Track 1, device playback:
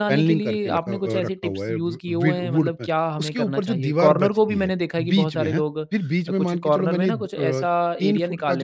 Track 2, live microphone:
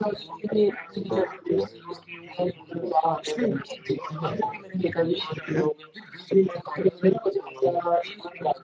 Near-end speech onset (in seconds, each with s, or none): 4.1 s